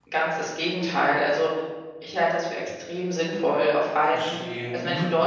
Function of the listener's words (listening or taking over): listening